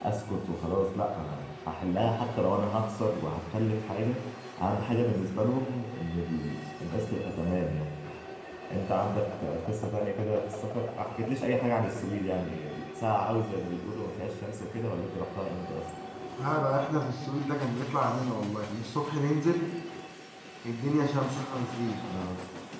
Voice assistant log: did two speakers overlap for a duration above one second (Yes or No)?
No